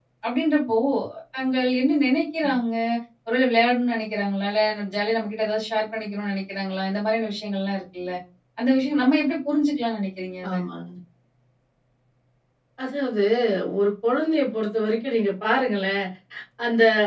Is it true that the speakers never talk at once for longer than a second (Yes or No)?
Yes